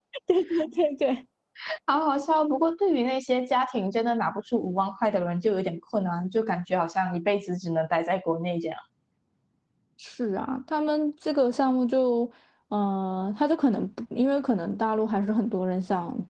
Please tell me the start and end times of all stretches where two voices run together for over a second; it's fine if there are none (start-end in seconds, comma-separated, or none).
none